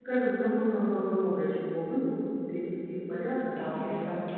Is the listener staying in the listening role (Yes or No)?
No